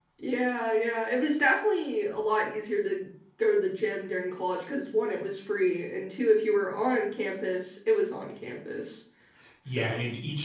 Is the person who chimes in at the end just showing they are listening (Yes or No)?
No